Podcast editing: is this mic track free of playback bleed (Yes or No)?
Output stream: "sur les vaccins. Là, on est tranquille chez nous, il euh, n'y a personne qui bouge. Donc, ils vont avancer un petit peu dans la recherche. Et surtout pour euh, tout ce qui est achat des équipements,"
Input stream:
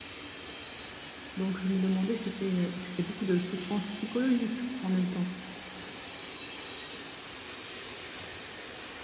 Yes